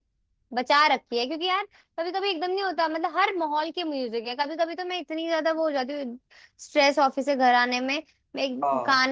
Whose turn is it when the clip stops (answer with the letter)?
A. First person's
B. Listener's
A